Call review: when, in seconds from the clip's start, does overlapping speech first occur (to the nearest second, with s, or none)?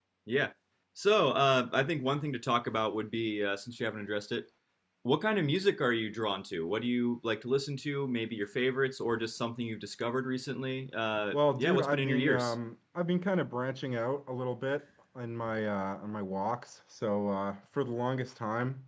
11 s